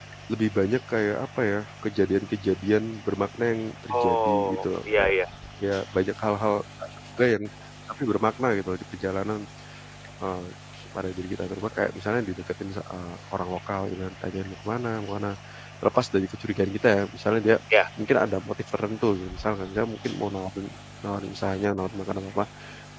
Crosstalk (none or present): present